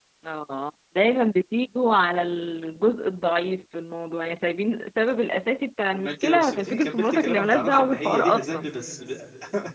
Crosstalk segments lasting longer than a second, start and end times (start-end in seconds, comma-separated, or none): 5.9-8.7